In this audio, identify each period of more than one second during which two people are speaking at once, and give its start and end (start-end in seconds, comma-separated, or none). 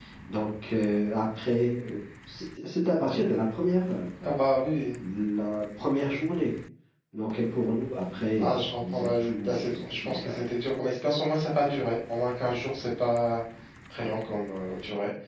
8.4-10.4